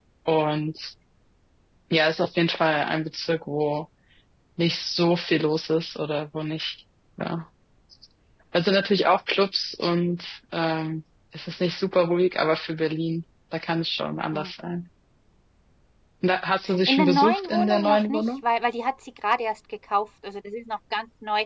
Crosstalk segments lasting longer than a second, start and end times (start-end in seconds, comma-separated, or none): 16.9-18.2